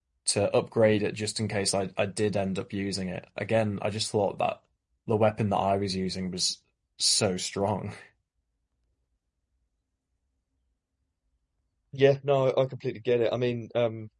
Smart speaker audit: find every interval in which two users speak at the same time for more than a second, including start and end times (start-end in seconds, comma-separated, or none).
none